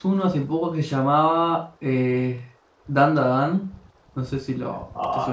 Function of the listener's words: taking over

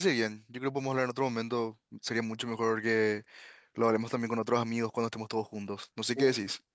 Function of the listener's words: taking over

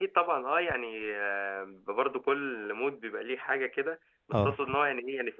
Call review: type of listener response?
listening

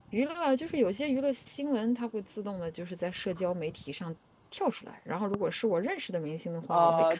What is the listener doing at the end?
taking over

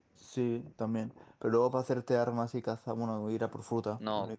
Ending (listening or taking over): taking over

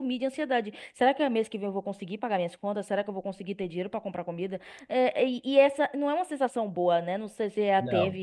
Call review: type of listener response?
listening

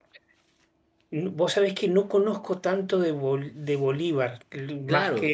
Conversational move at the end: taking over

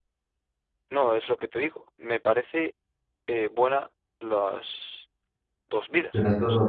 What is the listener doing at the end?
taking over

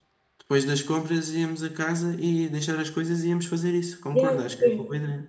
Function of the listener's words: taking over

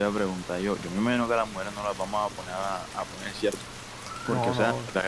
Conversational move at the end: listening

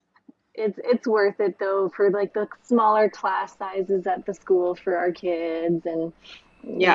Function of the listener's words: taking over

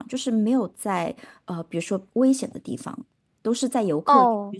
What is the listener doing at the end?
taking over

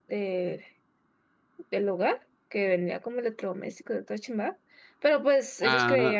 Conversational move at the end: listening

